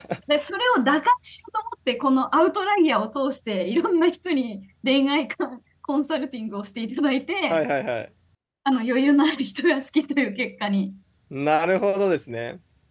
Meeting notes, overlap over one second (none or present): none